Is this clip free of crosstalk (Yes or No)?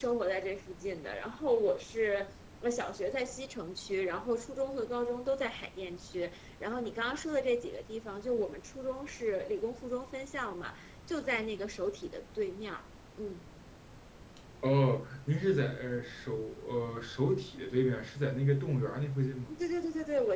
Yes